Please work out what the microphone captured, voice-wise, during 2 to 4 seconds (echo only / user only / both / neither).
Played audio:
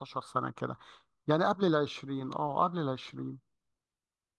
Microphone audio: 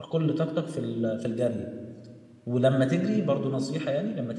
user only